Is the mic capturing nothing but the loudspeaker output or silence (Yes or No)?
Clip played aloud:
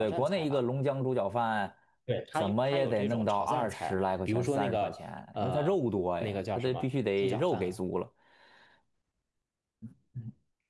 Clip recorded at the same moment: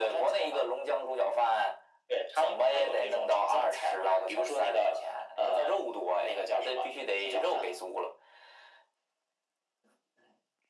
Yes